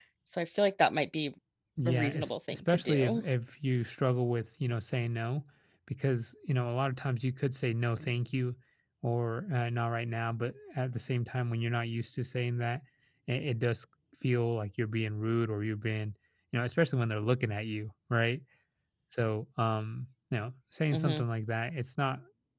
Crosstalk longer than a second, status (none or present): present